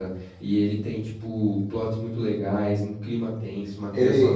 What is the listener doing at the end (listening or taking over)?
taking over